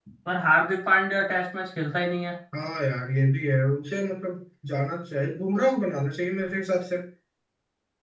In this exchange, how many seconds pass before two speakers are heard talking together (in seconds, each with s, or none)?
none